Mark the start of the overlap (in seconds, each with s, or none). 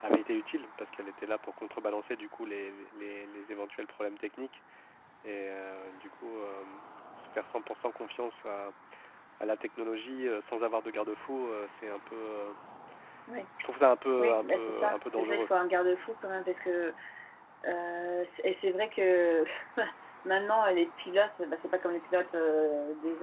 14.2 s